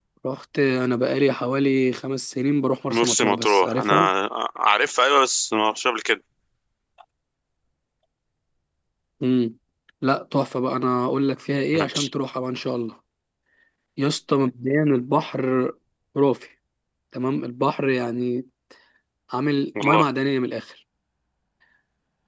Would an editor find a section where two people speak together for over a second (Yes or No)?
Yes